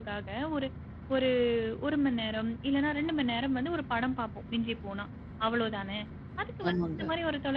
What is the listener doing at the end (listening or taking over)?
listening